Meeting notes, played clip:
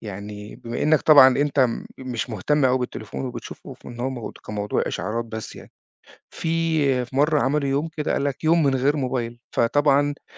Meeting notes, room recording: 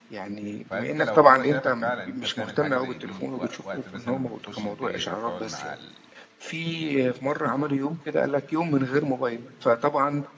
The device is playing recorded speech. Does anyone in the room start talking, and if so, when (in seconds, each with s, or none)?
0.6 s